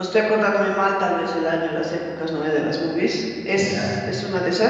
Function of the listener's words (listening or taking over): listening